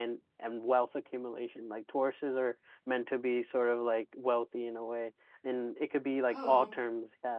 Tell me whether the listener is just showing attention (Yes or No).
Yes